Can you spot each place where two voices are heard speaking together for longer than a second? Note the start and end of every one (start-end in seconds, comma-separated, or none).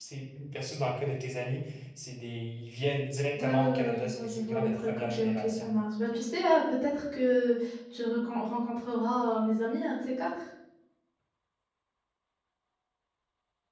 3.4-5.7